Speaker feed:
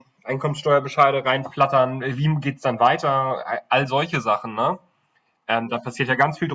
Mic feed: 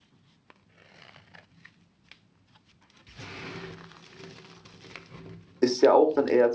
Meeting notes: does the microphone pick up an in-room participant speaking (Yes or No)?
Yes